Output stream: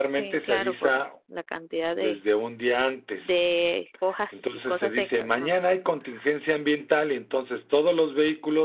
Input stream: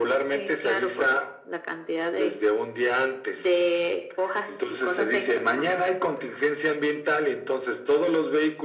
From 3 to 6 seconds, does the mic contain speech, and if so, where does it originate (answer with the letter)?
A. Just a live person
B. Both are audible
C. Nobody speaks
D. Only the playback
D